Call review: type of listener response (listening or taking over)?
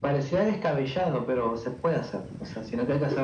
listening